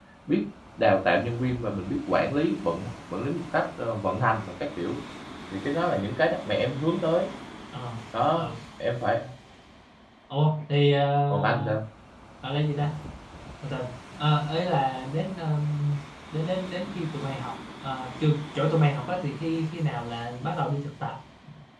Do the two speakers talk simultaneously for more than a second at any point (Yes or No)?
No